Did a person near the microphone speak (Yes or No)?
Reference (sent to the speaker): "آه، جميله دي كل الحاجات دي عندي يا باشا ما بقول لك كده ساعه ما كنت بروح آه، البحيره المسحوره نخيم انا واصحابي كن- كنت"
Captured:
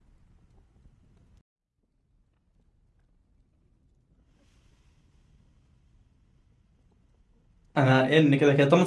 Yes